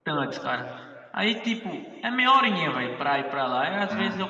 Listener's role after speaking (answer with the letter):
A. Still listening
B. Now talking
A